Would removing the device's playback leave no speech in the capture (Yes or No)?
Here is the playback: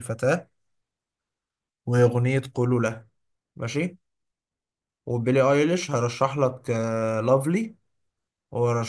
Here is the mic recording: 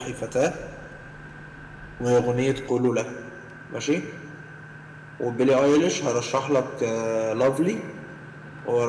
Yes